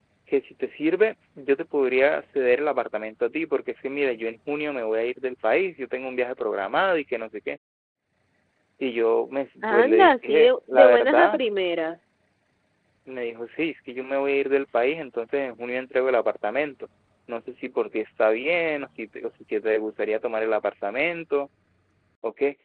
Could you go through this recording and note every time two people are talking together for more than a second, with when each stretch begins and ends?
9.6-11.4

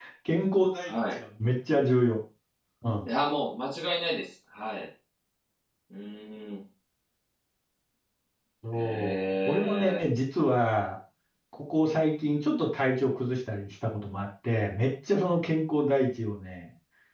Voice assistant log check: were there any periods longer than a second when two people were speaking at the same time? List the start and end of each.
8.7-10.0

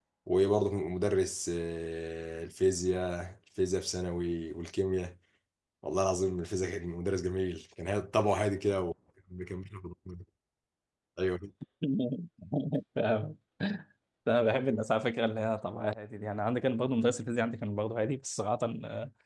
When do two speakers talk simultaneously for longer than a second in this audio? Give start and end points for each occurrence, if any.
none

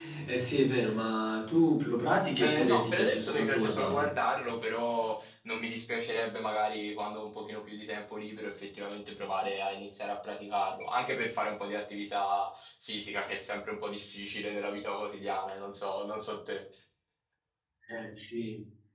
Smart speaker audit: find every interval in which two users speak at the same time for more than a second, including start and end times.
2.4-4.1

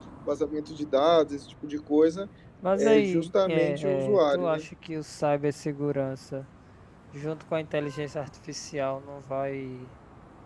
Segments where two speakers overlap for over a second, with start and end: 2.8-4.7

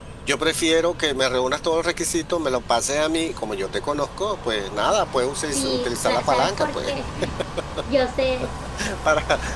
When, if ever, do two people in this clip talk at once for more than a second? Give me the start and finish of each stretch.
5.5-6.9

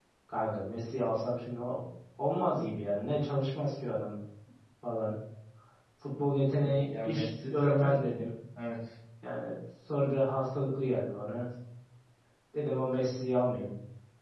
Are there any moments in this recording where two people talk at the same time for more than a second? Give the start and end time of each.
6.6-8.0

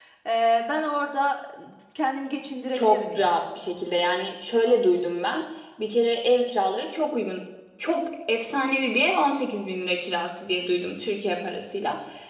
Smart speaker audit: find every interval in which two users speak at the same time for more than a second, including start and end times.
none

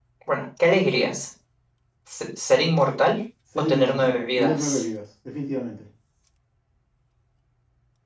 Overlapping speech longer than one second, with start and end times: 3.6-4.8

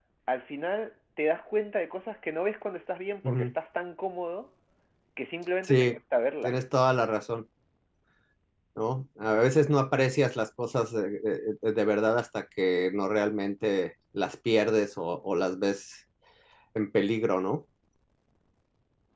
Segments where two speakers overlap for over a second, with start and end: none

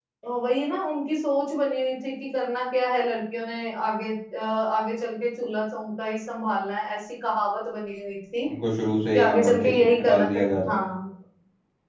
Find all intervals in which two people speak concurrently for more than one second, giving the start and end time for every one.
9.1-10.8

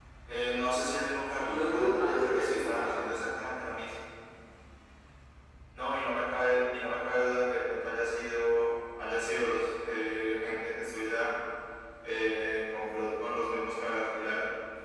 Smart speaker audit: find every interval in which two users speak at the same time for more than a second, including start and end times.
1.4-3.0

